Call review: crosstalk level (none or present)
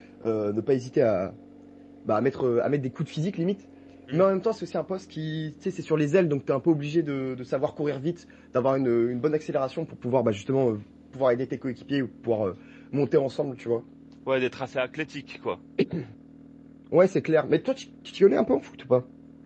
none